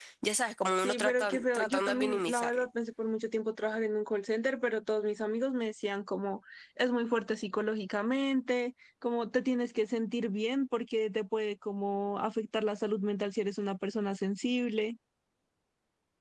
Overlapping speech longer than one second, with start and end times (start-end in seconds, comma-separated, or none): 0.8-2.6